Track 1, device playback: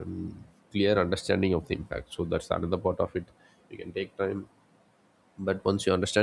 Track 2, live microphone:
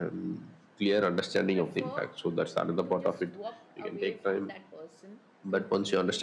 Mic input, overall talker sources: both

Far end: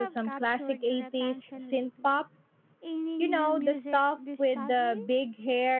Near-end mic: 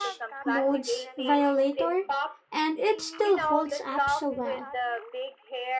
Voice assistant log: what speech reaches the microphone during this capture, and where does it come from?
both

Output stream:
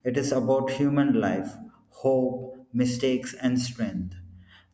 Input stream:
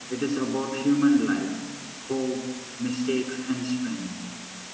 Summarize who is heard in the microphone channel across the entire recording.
echo only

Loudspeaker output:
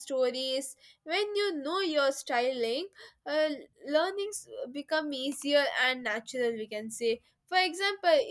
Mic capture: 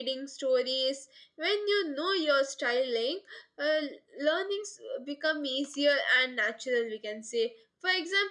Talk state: echo only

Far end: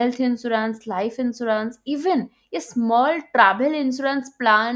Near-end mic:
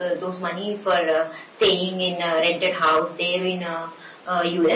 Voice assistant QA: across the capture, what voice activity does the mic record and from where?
user only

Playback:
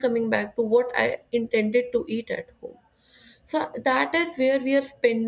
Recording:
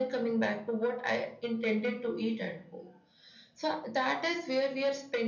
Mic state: echo only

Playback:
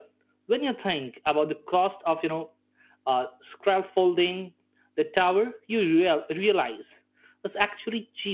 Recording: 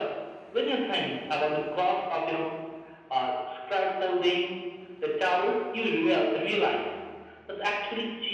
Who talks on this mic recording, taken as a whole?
echo only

